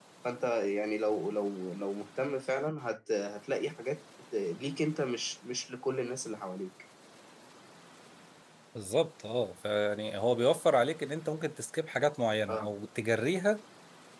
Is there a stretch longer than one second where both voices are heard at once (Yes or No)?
No